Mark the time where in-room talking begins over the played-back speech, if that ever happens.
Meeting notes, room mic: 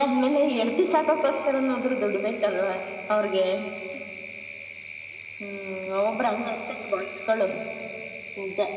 none

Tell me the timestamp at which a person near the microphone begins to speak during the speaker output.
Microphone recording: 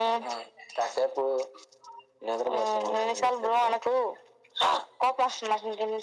none

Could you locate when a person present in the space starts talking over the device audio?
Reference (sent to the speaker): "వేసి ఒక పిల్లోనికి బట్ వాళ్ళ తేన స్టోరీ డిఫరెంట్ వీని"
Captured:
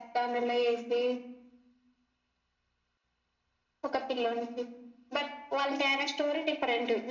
none

